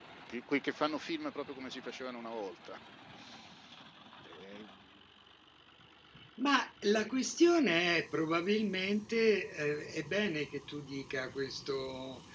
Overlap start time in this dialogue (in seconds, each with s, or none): none